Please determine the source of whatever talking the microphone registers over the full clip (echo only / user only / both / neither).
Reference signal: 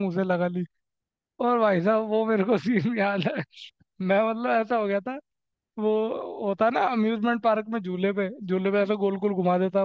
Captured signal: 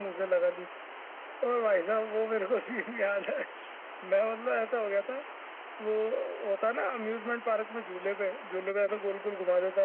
echo only